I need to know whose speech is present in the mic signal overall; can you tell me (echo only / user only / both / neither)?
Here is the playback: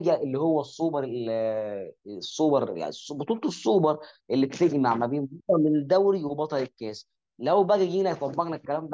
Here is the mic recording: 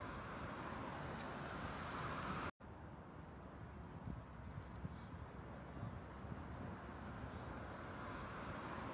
neither